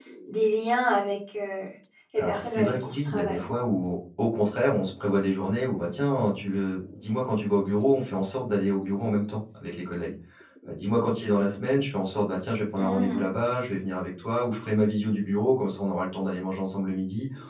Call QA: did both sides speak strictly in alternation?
No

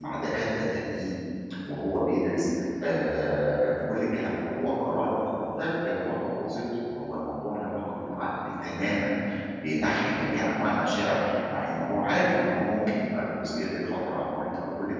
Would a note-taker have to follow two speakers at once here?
No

